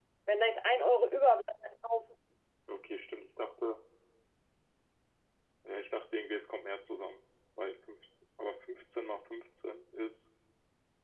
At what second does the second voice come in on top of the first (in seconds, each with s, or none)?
none